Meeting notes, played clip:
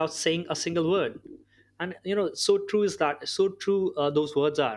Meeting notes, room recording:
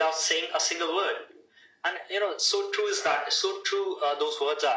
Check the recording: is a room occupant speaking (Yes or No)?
No